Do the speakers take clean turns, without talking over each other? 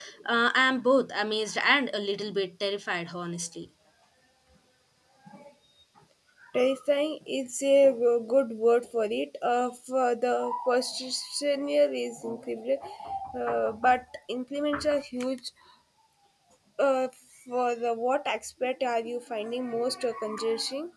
Yes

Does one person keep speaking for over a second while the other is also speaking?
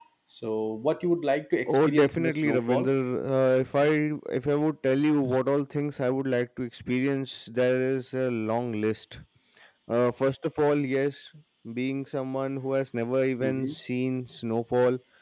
Yes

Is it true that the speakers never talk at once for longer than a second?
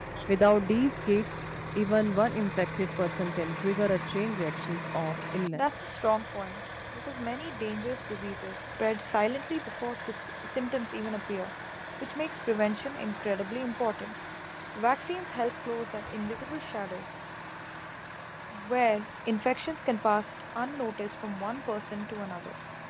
Yes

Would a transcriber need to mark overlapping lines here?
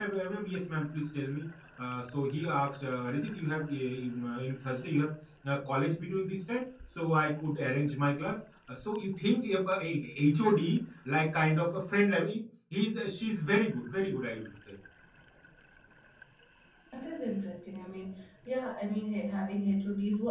No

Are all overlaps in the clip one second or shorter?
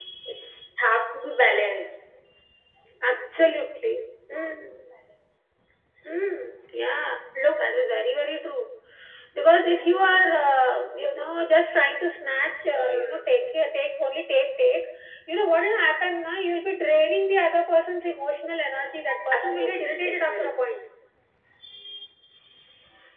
No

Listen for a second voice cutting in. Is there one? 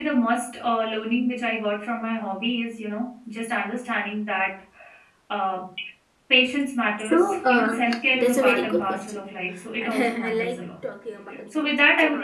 Yes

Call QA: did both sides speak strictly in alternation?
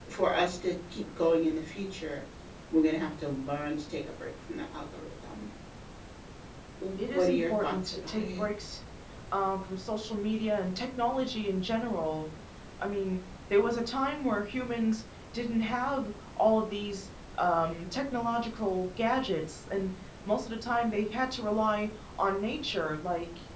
No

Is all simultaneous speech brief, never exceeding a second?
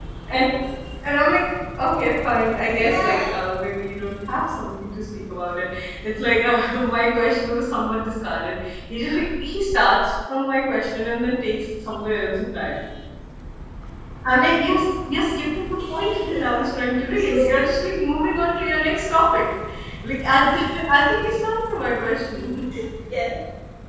No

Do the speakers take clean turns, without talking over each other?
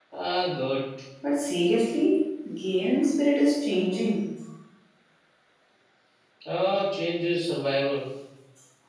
Yes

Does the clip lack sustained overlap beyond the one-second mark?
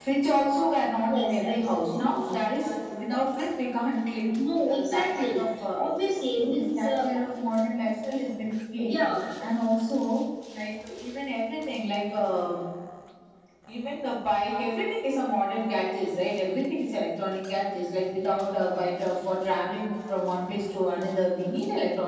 No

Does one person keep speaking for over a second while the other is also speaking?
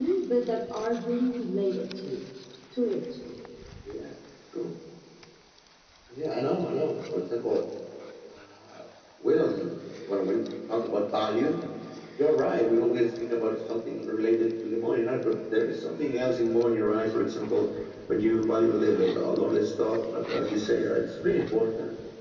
No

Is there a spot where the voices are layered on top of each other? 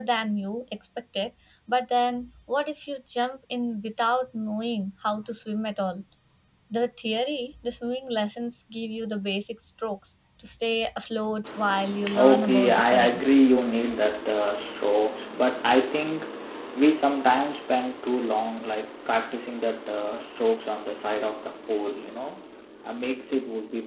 Yes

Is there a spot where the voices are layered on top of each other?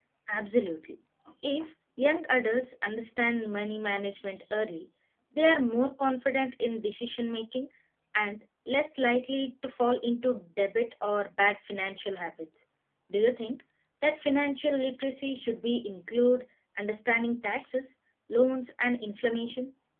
No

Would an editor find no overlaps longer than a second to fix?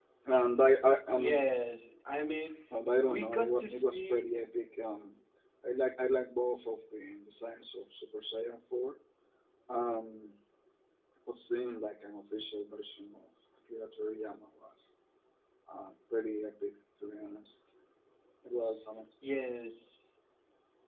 No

